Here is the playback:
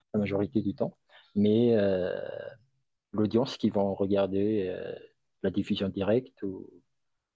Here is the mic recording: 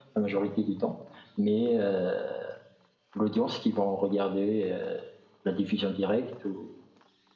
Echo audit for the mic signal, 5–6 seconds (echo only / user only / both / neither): echo only